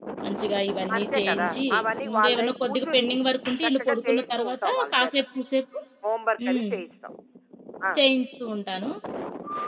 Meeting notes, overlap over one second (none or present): present